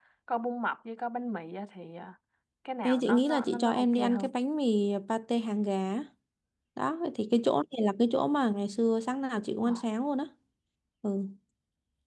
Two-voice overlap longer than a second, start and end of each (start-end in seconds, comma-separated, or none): 2.8-4.3